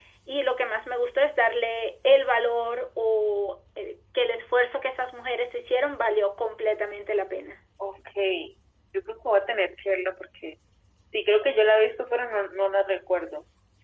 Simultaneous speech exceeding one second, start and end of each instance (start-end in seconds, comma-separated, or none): none